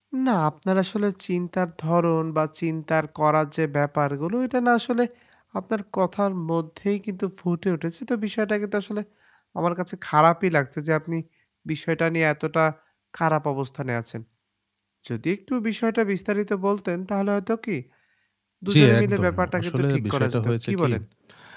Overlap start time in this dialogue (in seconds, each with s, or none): 18.7 s